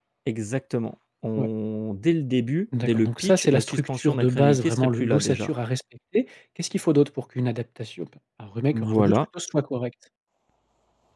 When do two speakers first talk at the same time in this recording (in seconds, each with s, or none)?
2.8 s